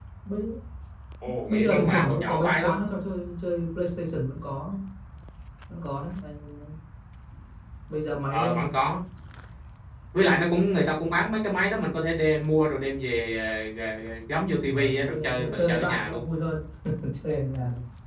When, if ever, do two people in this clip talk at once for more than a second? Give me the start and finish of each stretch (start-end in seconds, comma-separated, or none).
1.5-2.8, 14.7-16.2